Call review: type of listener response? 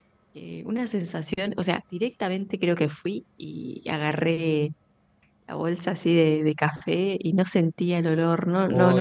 taking over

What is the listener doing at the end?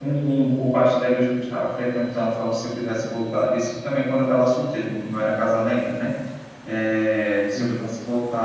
listening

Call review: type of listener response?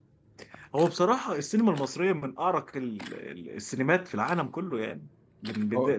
listening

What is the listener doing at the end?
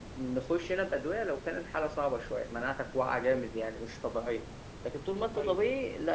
listening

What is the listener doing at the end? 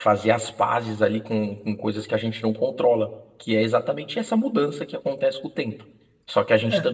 listening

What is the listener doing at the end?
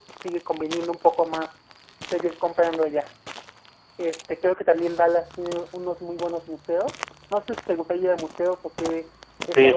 taking over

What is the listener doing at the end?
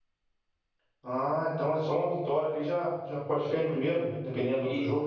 taking over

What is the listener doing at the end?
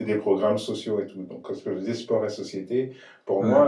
listening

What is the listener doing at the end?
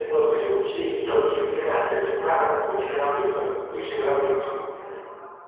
taking over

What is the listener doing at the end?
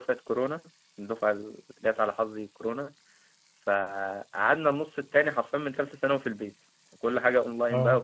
listening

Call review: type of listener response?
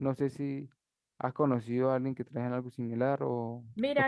taking over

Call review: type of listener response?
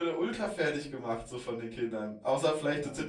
listening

